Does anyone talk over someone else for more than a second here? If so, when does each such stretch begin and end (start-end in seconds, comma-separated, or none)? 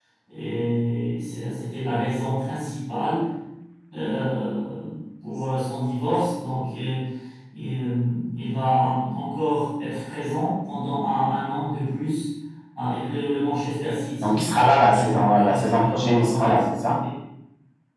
14.9-16.5